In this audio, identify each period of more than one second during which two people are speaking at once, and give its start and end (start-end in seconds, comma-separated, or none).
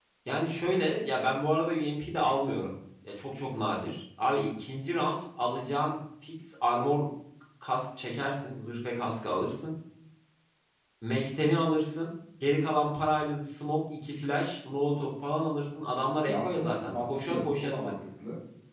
16.2-17.9